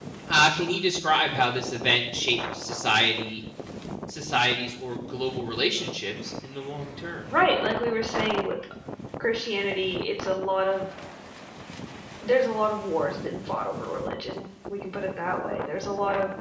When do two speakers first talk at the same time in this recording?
none

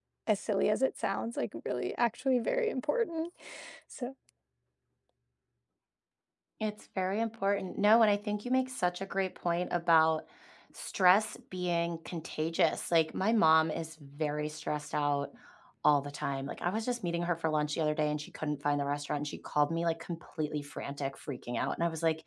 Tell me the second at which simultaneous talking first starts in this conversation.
none

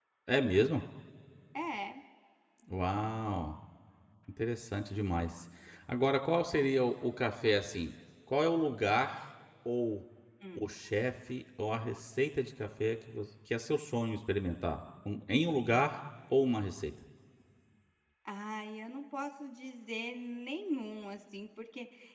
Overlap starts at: none

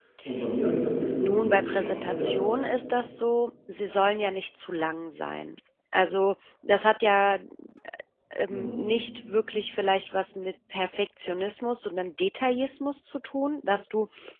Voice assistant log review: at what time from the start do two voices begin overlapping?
1.2 s

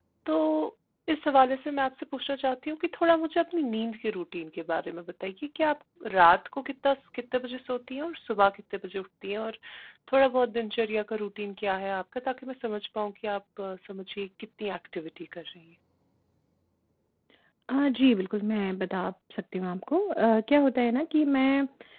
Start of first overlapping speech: none

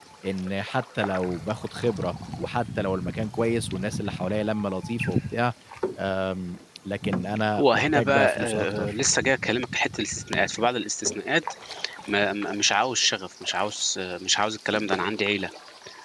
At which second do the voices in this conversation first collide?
7.5 s

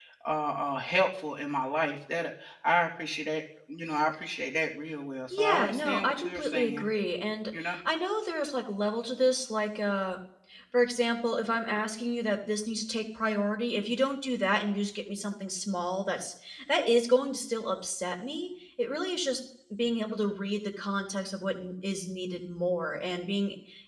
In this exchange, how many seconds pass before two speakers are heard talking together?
5.3 s

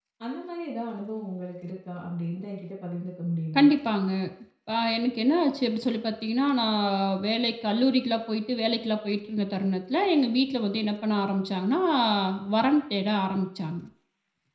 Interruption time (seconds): none

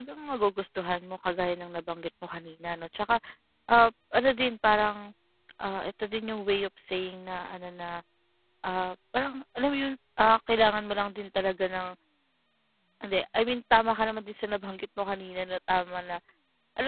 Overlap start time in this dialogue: none

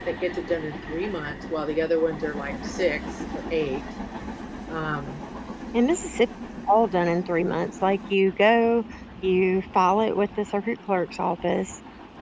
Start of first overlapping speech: none

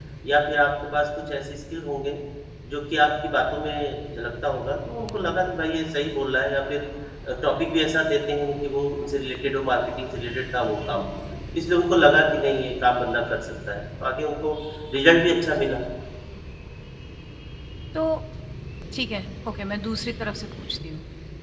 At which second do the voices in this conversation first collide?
none

